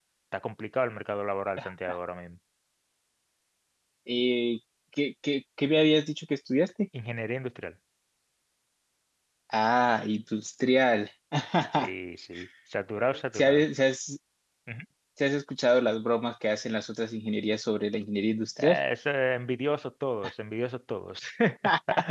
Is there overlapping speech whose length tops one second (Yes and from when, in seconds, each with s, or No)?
No